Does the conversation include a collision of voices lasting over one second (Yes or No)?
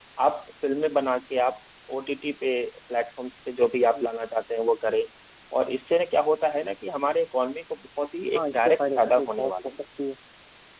Yes